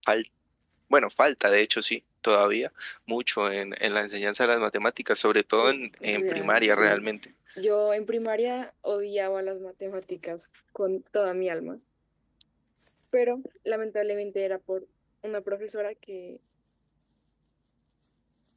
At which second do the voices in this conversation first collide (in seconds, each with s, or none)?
5.6 s